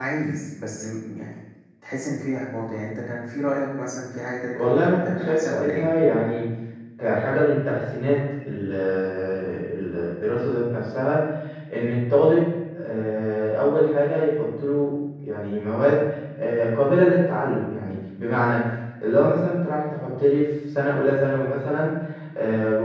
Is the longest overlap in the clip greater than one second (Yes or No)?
Yes